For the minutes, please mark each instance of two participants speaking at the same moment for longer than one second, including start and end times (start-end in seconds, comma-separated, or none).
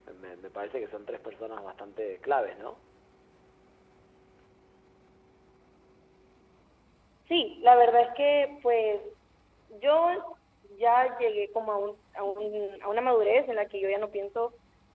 none